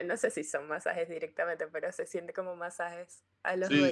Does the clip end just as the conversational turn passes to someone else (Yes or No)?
Yes